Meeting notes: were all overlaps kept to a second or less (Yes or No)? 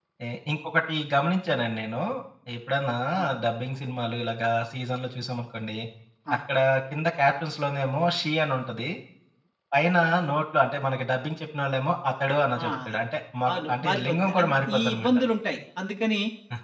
No